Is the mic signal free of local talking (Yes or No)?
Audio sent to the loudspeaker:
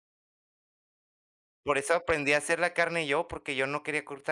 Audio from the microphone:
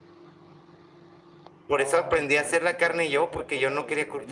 No